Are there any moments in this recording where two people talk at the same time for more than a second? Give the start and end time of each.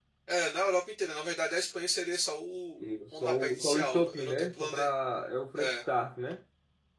2.8-4.9

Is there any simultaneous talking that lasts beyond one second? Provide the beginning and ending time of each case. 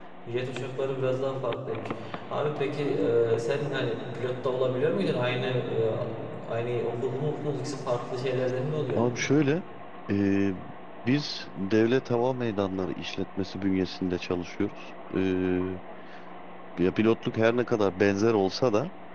none

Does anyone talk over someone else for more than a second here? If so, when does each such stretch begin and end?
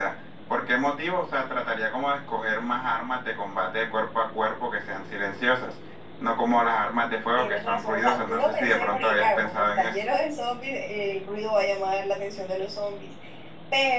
7.3-9.9

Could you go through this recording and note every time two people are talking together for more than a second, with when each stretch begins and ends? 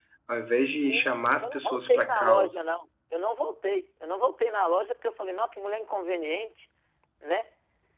0.8-2.6

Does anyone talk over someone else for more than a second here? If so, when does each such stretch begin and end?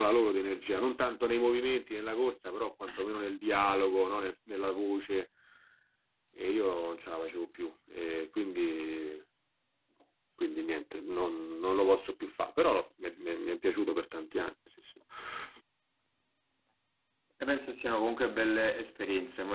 none

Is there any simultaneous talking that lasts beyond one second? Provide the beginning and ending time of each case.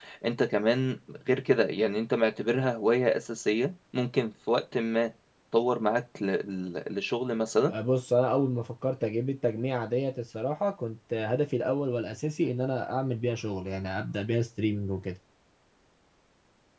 none

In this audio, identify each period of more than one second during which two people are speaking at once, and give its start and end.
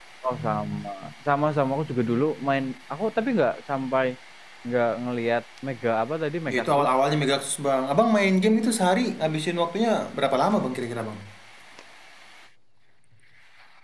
none

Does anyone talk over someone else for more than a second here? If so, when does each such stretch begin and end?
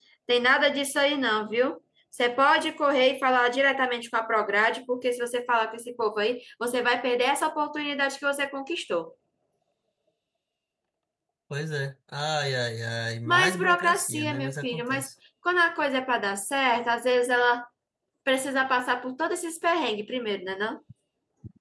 13.2-15.1

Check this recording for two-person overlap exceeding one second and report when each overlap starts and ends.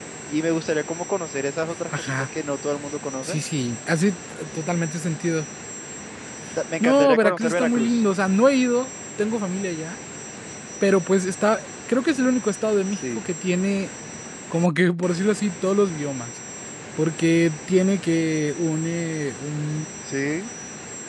6.8-8.0

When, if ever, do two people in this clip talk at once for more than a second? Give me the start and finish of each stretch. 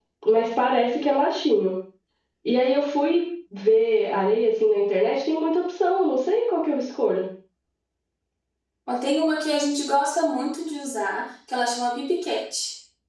none

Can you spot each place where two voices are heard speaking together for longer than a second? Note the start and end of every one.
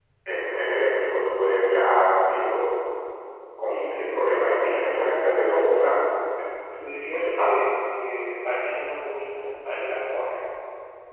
4.6-6.1

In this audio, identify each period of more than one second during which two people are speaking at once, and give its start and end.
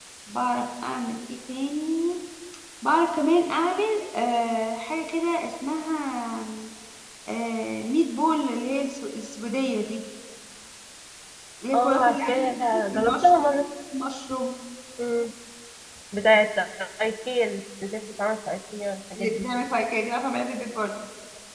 11.7-13.5

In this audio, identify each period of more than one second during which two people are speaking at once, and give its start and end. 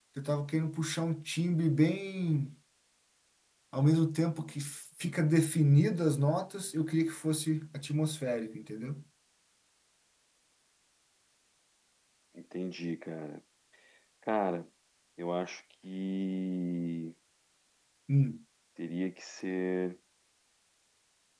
none

